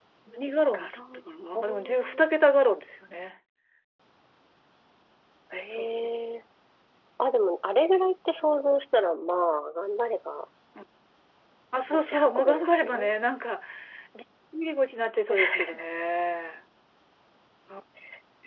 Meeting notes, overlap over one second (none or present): present